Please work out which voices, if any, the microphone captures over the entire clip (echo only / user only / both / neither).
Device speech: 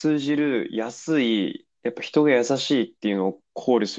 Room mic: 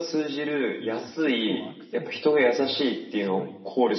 both